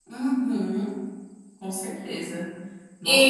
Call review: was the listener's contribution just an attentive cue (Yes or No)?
No